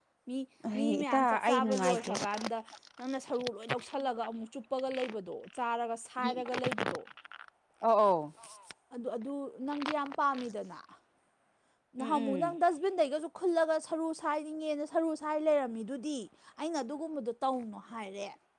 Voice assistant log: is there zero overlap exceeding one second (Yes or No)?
No